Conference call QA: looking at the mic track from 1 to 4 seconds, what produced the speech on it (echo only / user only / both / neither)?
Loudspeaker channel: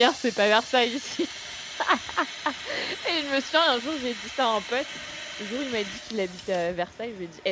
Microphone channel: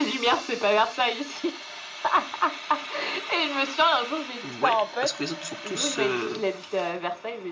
echo only